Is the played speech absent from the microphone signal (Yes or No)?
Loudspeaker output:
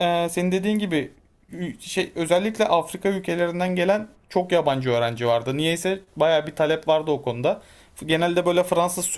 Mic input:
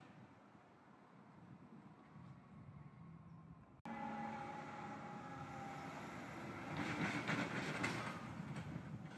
Yes